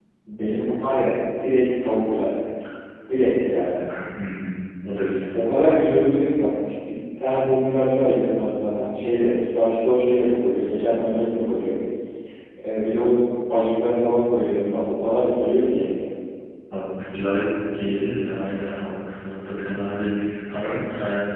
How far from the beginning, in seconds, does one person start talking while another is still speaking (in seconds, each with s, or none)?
none